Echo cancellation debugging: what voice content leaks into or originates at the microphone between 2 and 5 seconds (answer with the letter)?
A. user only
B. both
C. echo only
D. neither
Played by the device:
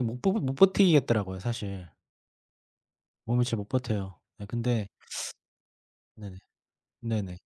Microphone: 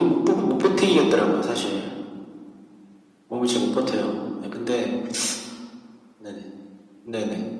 C